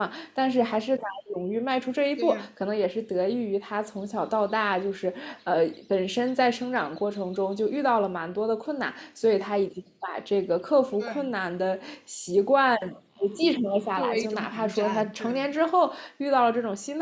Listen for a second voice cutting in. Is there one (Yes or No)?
Yes